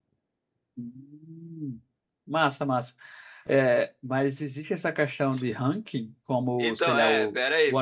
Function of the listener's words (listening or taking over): taking over